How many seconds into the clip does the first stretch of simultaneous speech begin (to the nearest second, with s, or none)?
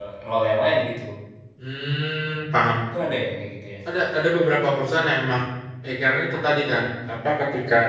none